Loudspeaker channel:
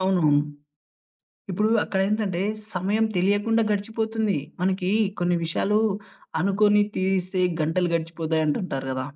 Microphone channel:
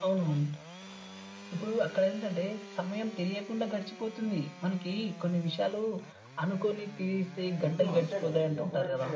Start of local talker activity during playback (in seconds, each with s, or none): 7.6 s